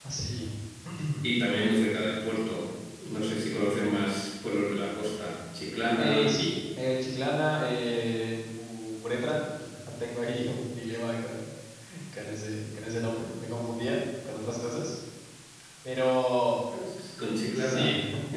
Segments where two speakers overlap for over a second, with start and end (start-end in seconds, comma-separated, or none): none